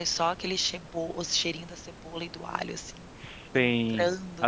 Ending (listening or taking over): taking over